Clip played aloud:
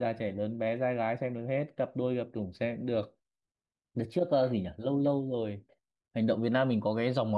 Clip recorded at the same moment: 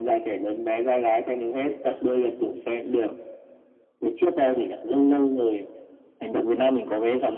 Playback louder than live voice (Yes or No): Yes